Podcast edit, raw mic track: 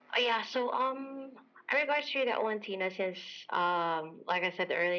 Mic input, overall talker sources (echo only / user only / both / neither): echo only